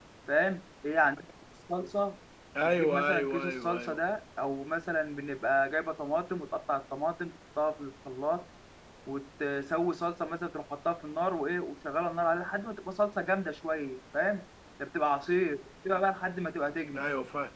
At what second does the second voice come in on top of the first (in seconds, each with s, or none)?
2.6 s